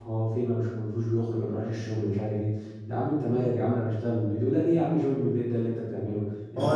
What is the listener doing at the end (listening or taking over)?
taking over